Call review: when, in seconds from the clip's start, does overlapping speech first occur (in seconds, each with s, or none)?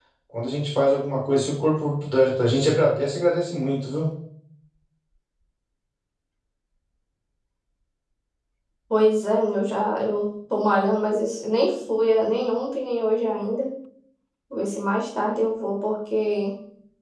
none